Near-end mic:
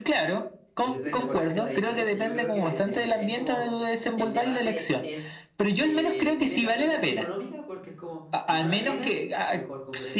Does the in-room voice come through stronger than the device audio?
No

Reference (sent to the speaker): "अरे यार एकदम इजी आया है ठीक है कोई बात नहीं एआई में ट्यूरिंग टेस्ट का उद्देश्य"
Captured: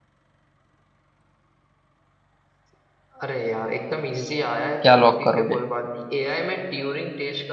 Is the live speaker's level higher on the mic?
Yes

